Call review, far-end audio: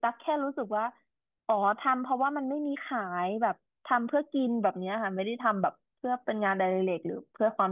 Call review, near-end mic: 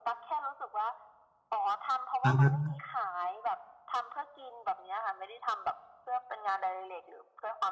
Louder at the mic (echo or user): user